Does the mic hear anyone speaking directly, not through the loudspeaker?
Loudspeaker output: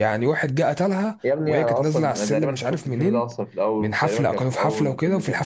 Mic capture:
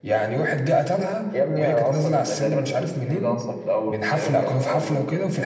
Yes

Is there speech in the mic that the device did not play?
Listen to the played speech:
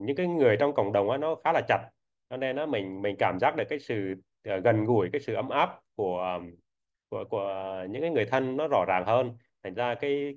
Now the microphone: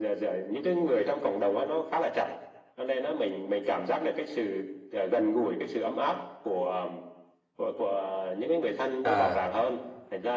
Yes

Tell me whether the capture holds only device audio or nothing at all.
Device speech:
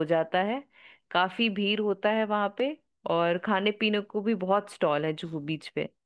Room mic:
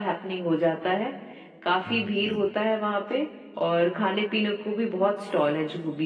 No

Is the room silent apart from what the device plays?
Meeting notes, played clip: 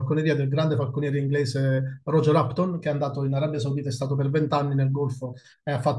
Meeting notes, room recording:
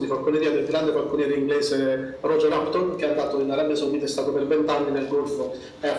Yes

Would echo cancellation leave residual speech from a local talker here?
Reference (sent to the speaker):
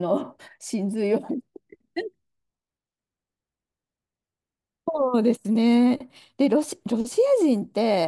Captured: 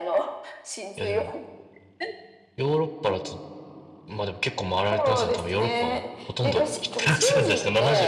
Yes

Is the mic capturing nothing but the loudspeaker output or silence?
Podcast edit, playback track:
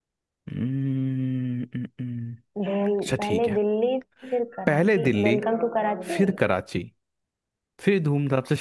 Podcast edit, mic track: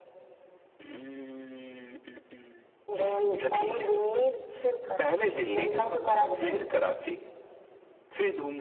Yes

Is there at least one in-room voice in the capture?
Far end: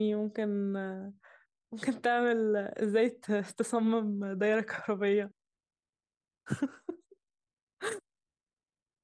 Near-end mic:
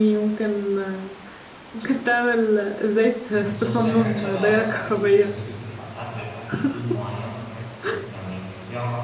Yes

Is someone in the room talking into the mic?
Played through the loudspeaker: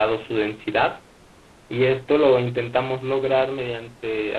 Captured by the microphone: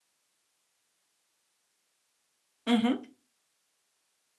Yes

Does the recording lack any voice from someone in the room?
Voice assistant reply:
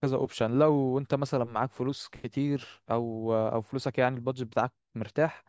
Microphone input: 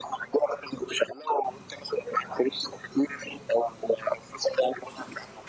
Yes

